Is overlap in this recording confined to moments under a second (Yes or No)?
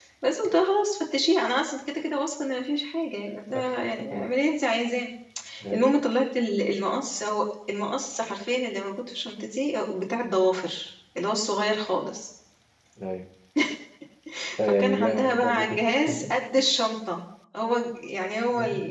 No